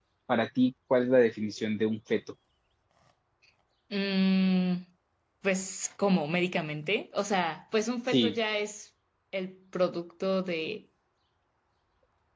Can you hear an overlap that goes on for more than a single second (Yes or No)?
No